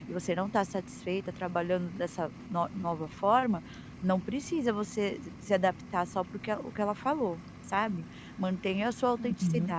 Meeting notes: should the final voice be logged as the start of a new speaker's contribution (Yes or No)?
No